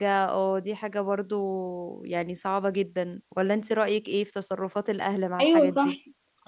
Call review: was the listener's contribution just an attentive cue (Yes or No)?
No